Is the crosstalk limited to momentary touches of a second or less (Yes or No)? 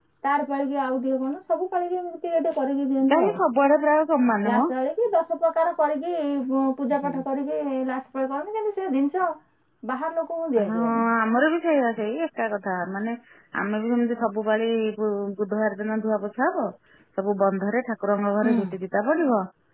Yes